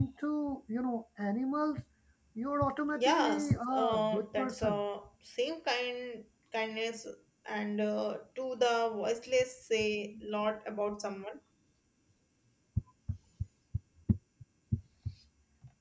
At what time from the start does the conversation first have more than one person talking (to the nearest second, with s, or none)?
3 s